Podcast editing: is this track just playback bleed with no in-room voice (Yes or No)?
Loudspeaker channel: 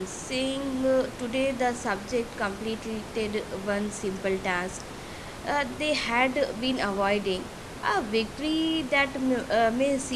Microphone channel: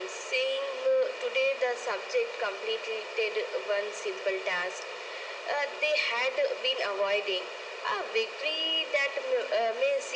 Yes